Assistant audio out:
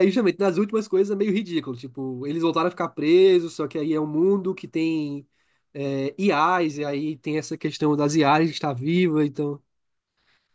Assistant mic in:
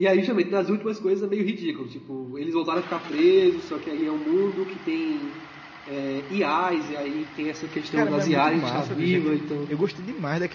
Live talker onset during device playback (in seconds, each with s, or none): 7.9 s